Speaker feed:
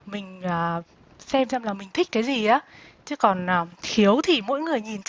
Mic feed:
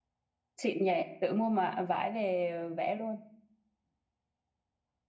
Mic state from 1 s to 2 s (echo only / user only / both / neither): user only